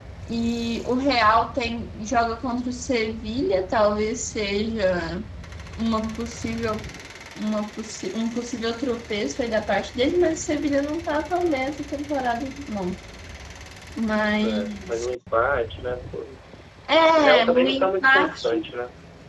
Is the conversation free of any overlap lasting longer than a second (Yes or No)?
No